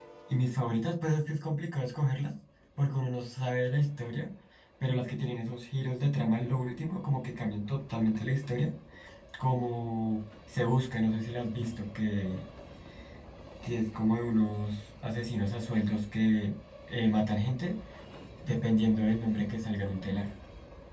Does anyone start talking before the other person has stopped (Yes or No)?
No